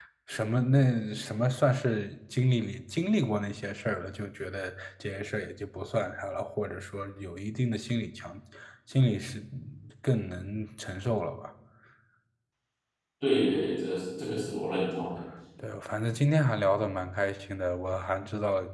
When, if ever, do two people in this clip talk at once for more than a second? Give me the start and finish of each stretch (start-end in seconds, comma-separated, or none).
none